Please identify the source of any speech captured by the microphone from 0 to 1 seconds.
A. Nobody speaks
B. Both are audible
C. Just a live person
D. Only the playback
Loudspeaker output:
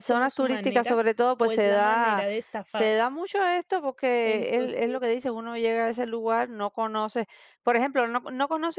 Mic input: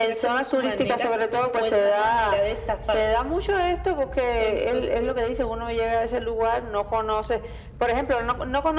D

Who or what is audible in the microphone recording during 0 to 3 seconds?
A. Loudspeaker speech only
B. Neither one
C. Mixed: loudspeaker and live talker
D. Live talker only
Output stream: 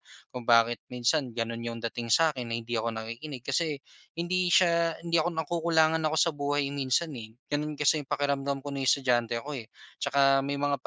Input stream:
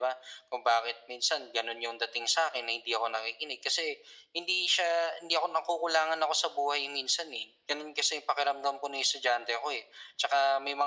A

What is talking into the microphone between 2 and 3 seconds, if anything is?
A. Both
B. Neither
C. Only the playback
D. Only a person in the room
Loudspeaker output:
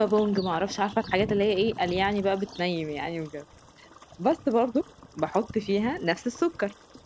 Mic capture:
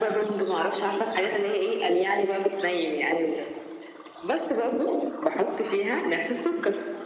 C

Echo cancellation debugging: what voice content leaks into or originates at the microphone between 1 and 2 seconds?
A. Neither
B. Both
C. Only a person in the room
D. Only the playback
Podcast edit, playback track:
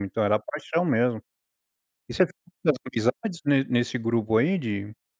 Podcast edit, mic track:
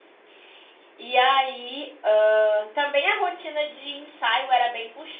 C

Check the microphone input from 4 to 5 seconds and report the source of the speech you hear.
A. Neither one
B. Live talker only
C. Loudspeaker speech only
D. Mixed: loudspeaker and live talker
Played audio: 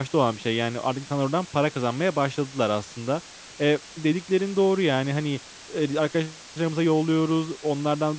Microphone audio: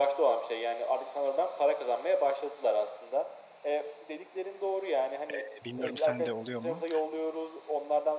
C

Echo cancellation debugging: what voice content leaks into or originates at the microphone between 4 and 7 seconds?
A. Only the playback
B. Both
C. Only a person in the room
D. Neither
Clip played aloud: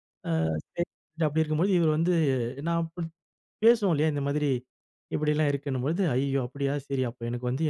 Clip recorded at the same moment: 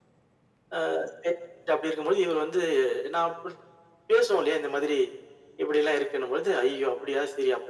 A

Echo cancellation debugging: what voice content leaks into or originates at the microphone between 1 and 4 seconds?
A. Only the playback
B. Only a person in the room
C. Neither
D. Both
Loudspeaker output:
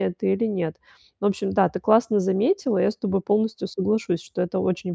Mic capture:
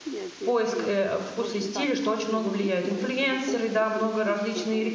D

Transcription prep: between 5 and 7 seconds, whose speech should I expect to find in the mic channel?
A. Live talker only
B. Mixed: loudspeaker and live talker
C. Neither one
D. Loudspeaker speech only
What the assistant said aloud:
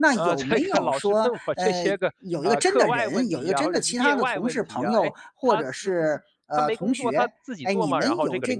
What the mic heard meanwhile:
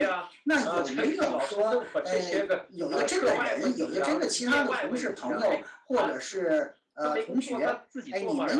D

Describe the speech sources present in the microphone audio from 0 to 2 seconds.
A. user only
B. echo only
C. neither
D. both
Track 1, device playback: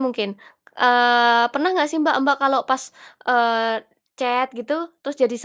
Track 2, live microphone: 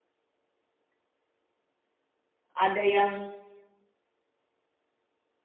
C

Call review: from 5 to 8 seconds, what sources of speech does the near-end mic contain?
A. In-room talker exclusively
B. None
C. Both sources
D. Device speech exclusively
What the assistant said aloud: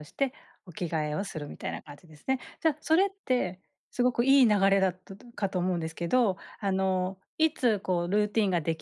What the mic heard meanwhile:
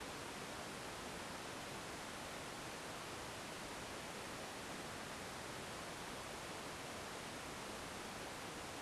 B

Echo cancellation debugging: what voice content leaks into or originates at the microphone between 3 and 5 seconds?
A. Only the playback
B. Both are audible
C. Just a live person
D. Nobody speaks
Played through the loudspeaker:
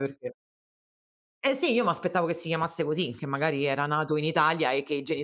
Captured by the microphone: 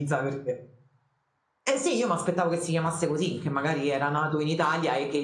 A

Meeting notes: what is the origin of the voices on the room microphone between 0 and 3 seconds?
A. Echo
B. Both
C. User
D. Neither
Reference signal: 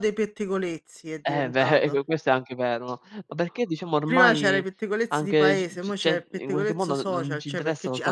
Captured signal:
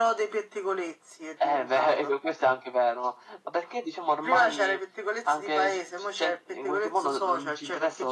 A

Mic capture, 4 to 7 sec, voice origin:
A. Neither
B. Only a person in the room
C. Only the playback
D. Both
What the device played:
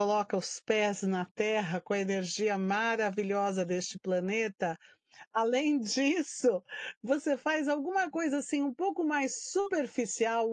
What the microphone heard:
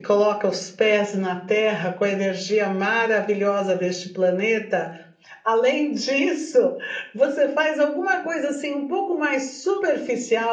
C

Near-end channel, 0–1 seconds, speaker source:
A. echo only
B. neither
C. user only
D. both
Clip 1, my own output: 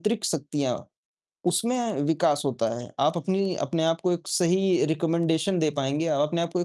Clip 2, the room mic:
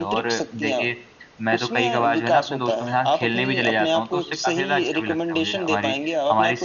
D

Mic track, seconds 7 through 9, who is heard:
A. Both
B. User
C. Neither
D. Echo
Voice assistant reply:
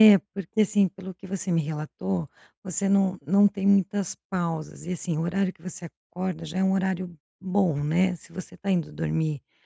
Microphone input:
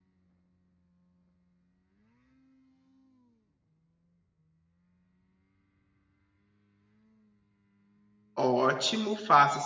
B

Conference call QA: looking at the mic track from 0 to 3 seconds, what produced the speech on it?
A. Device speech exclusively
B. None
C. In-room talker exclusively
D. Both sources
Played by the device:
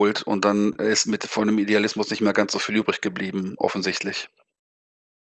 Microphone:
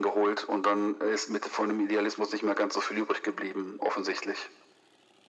A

